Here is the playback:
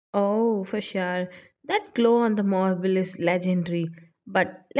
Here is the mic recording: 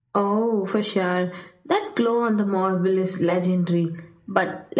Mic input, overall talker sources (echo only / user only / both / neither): echo only